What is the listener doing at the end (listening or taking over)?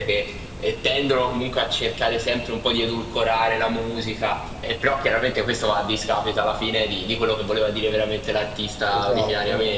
taking over